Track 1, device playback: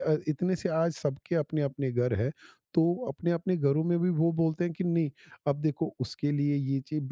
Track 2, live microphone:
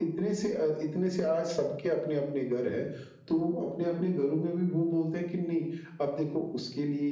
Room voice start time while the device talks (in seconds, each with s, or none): none